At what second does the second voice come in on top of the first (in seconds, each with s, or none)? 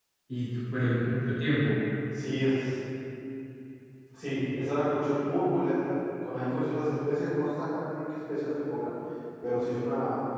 none